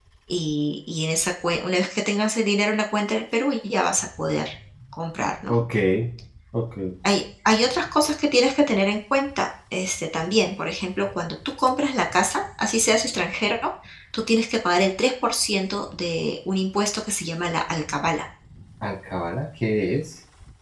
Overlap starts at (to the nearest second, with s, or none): none